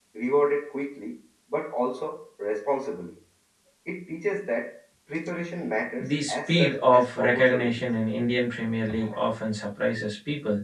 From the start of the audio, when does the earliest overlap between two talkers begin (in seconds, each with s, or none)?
6.0 s